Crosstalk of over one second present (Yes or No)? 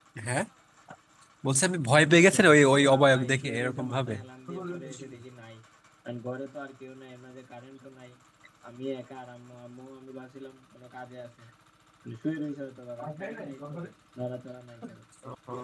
Yes